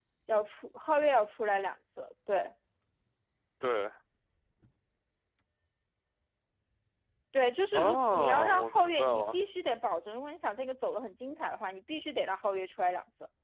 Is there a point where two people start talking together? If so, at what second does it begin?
7.7 s

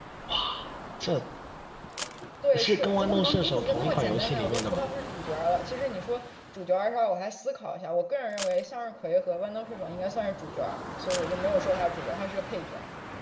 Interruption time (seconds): 2.5 s

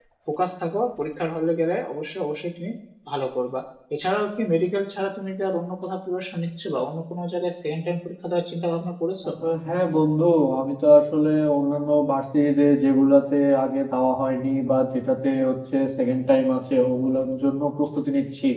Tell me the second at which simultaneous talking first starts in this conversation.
none

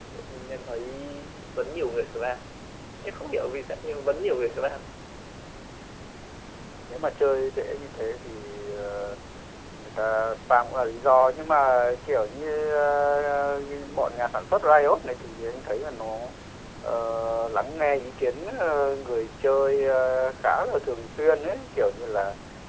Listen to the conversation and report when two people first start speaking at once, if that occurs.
none

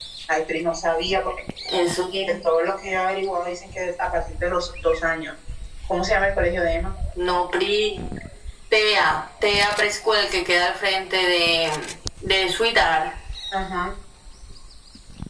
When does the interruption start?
none

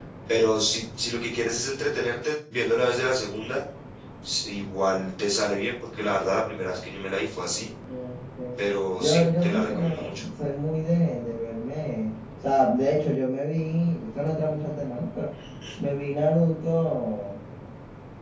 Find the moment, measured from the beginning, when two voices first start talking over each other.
8.9 s

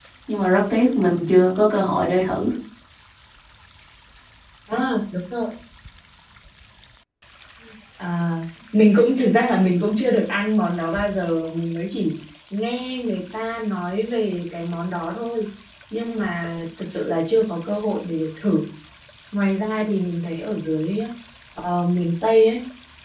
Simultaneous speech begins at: none

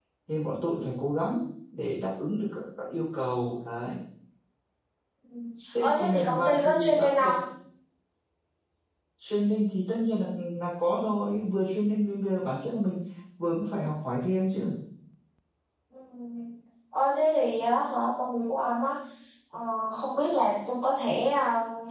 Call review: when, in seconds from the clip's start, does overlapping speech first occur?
5.8 s

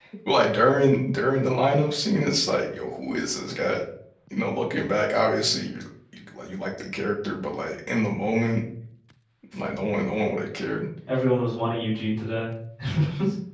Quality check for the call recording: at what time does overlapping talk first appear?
none

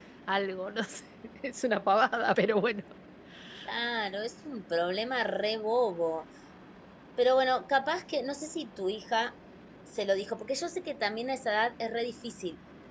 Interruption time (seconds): none

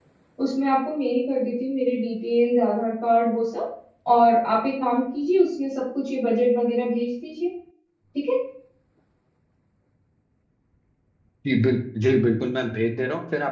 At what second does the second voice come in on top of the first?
none

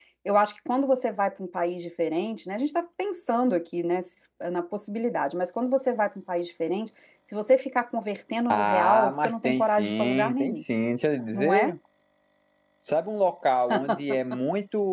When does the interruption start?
8.5 s

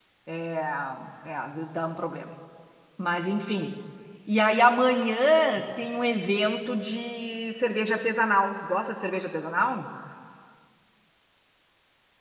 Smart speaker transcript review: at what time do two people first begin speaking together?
none

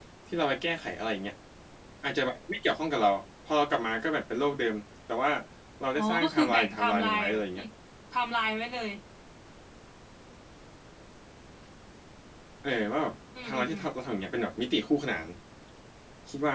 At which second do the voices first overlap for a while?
6.0 s

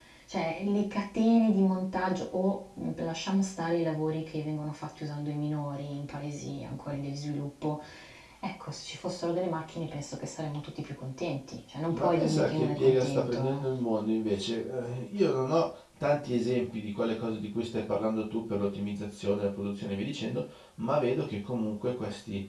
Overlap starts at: 11.9 s

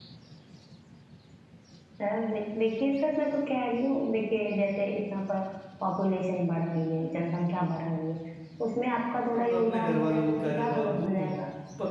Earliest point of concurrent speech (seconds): 9.3 s

